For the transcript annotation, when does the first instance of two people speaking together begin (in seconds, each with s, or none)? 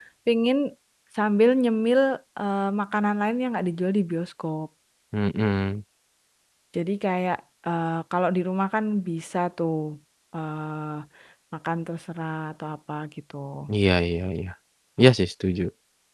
none